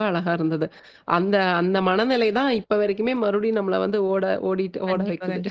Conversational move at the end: taking over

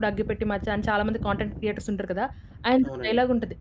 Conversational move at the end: listening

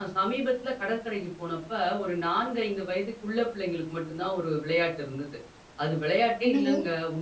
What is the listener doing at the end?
listening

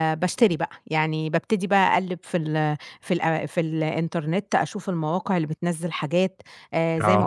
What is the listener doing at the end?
listening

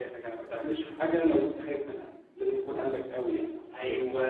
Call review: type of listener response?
taking over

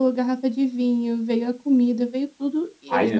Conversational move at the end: taking over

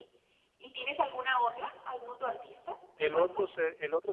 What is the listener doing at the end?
taking over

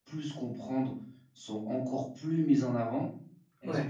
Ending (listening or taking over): listening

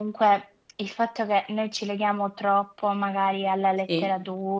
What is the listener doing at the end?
listening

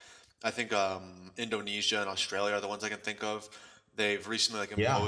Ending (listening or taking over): listening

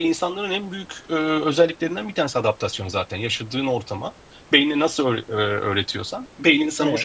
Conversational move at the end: taking over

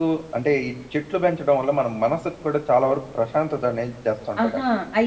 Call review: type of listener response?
taking over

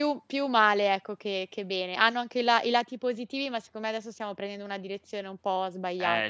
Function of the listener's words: taking over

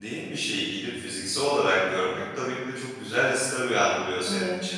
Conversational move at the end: listening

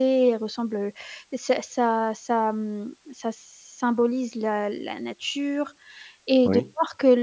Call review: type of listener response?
listening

